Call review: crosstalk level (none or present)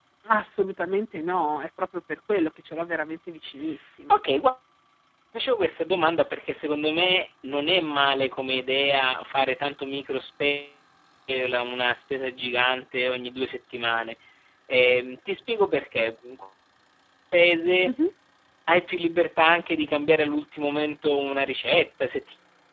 none